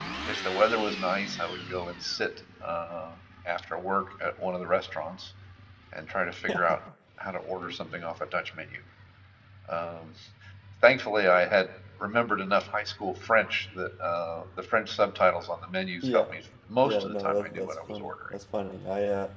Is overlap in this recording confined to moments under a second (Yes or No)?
No